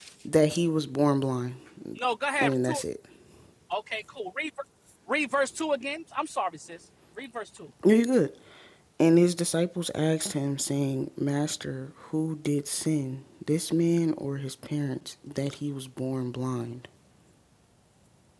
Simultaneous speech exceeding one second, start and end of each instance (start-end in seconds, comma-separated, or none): none